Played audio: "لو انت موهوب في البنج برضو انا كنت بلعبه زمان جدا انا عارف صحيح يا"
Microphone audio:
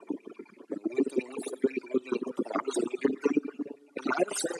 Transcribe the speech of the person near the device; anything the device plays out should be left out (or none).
none